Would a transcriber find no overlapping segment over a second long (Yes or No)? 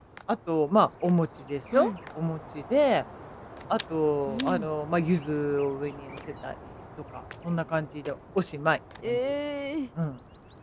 Yes